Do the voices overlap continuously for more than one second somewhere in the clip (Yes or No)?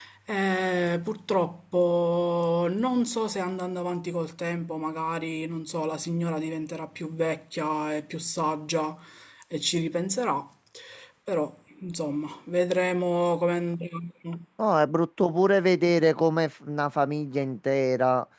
No